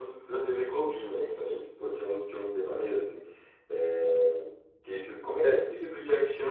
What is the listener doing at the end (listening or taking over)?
listening